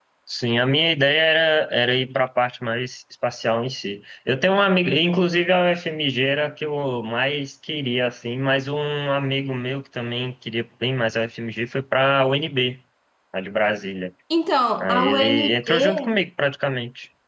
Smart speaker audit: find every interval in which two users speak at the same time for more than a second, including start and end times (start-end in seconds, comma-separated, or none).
14.8-16.2